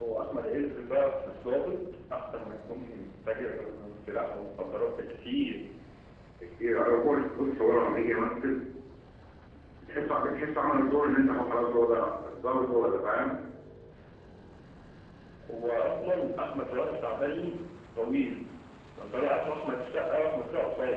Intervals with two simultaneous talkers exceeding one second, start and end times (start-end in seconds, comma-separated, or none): none